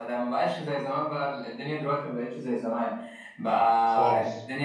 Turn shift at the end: No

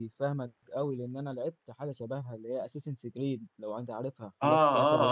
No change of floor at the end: No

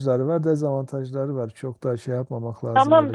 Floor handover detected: Yes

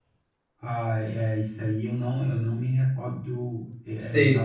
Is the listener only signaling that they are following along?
Yes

